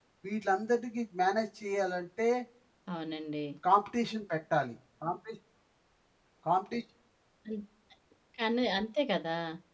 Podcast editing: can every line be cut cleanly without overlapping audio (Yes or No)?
Yes